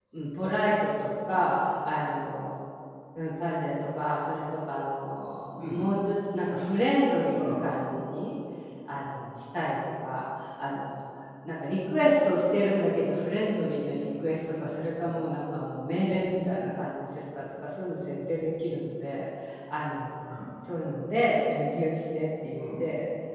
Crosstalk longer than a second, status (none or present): none